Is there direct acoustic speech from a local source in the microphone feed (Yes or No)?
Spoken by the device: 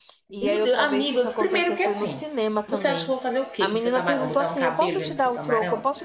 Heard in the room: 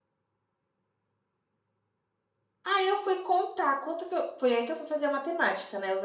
Yes